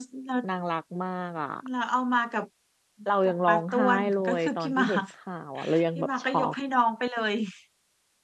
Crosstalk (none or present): present